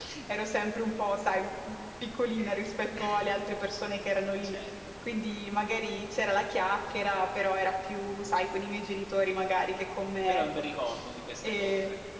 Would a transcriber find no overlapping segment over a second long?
Yes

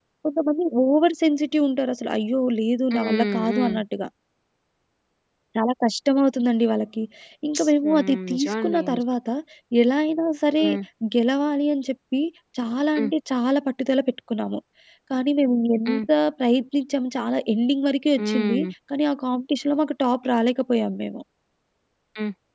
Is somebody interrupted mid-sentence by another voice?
Yes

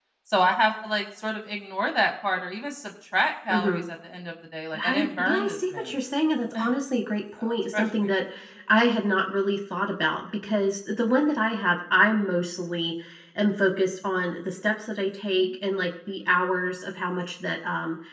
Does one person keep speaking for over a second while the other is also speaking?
Yes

